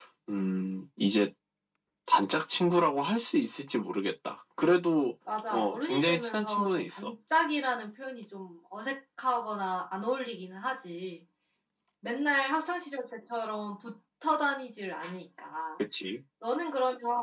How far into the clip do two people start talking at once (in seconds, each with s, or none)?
5.5 s